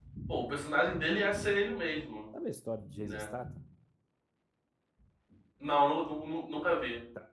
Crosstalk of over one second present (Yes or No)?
No